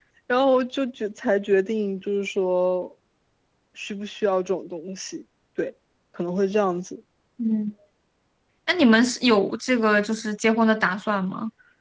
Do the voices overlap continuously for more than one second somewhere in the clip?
No

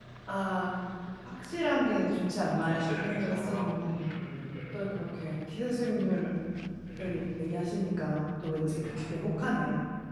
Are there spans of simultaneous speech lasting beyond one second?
Yes, from 2.5 s

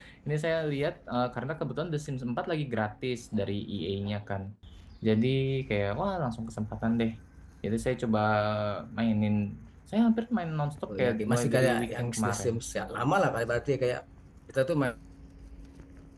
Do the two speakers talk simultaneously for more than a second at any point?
Yes, from 10.9 s

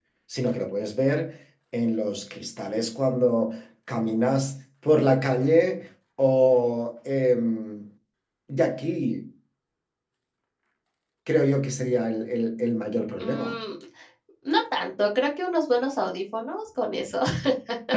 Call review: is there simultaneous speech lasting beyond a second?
No

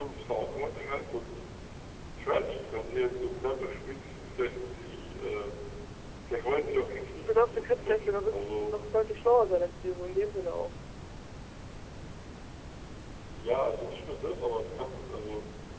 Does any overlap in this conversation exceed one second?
Yes, from 7.2 s

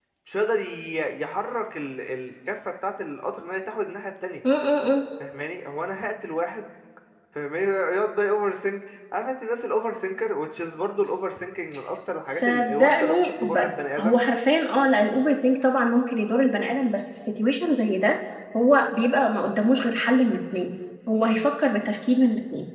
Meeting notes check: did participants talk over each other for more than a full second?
Yes, from 12.3 s

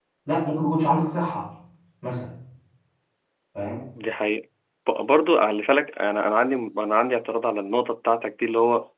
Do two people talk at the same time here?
No

